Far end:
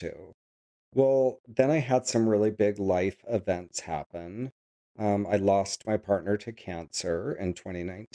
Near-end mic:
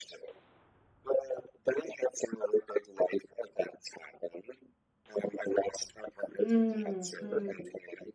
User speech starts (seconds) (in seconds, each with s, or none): 6.4 s